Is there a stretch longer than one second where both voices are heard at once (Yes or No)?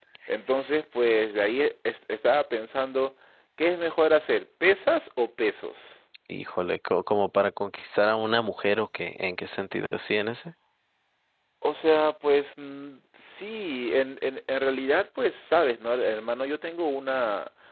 No